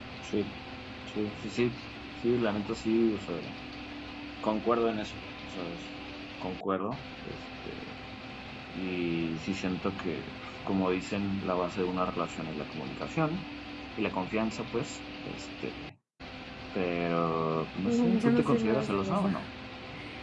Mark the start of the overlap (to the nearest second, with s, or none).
18 s